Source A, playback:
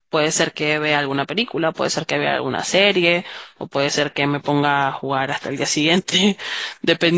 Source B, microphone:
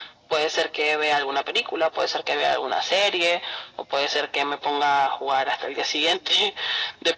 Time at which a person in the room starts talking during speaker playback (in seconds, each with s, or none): none